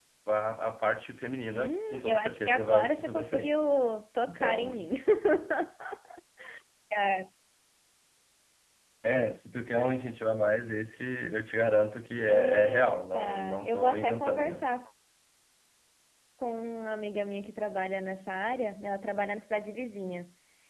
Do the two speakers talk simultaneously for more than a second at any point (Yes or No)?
Yes